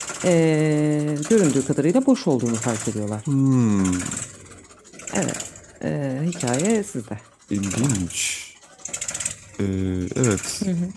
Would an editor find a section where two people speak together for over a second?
No

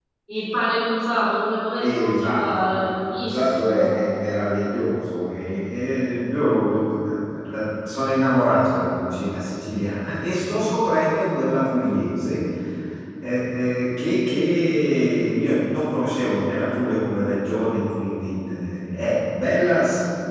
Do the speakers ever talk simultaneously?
Yes, from 1.7 s

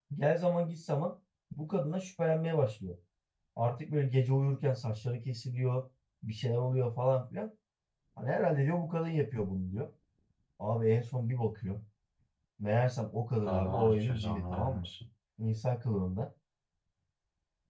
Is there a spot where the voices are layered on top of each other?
Yes, from 13.4 s

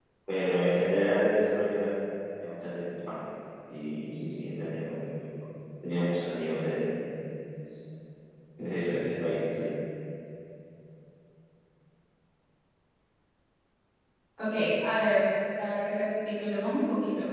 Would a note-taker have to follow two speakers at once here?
No

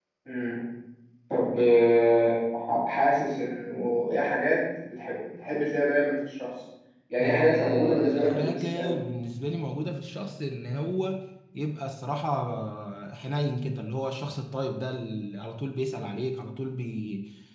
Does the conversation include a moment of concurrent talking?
Yes, from 7.2 s

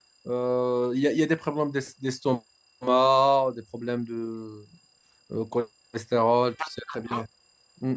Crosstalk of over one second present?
No

